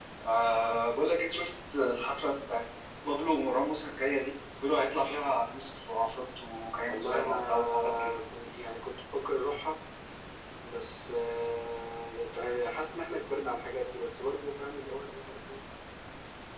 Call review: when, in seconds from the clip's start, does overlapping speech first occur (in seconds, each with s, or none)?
6.9 s